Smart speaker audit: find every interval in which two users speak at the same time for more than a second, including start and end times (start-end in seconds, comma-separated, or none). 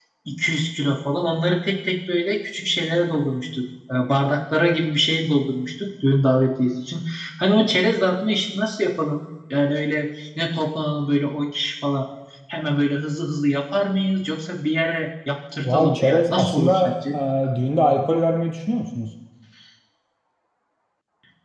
15.6-17.2